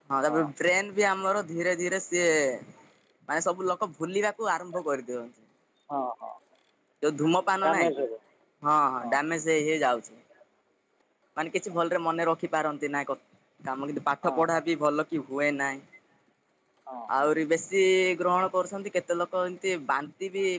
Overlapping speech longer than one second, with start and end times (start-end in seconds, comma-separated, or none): none